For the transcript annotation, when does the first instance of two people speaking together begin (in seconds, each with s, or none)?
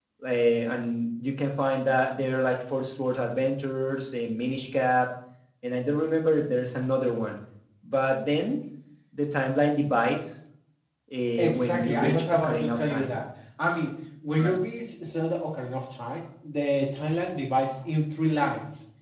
11.4 s